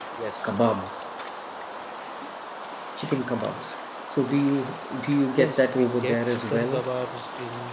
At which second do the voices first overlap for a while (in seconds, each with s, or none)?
5.4 s